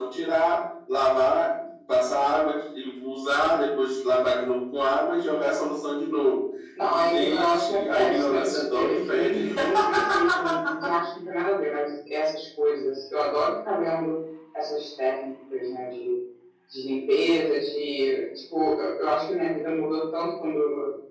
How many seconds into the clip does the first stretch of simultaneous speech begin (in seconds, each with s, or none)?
6.8 s